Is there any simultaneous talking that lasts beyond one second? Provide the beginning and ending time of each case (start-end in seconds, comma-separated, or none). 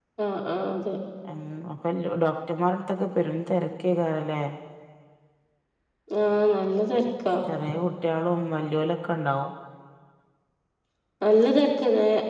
none